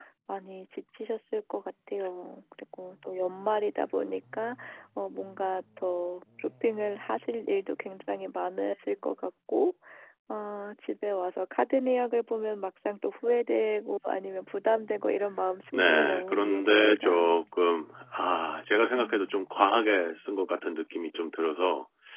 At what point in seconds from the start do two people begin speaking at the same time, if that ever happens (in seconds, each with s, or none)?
15.7 s